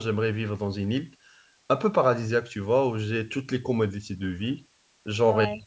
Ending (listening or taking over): listening